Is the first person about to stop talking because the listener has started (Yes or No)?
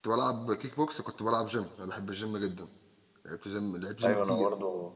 Yes